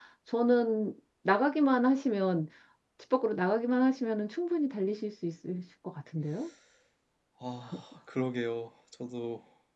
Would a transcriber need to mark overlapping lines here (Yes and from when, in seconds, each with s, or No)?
No